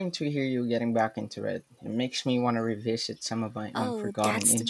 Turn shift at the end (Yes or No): Yes